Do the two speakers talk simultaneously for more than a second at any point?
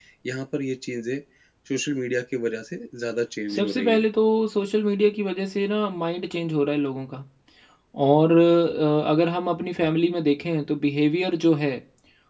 No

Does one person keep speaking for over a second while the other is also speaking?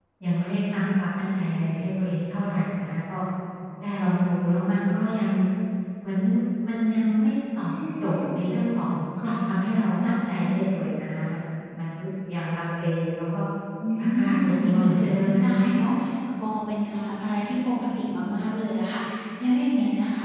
Yes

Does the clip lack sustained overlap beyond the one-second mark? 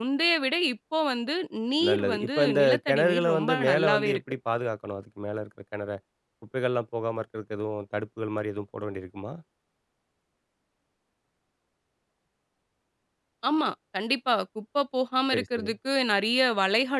No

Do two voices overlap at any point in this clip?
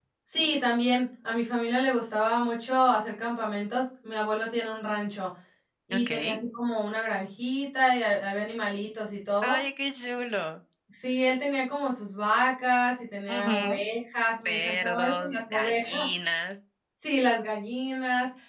Yes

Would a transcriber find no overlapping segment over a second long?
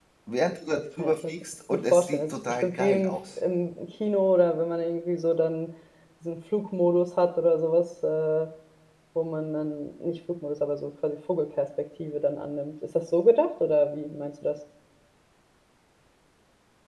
No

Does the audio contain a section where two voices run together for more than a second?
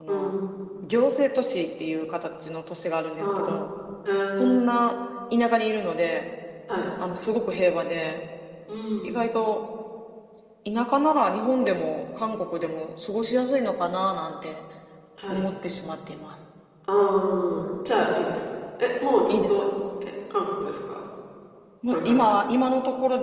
No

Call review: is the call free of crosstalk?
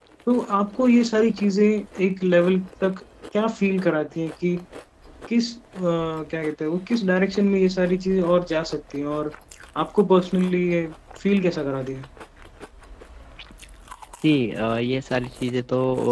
Yes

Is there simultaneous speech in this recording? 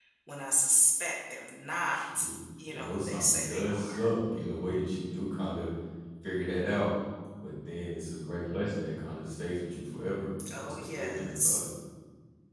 Yes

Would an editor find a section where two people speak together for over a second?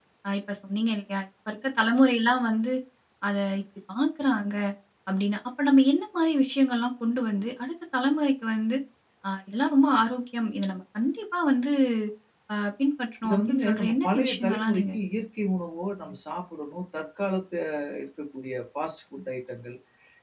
Yes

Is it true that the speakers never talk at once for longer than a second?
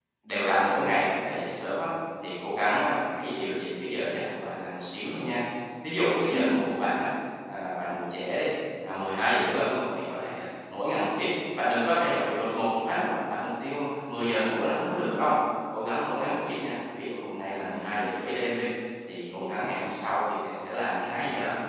Yes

